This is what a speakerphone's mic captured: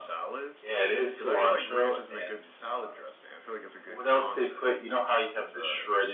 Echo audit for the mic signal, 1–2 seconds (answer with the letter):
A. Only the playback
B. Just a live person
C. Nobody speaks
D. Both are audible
A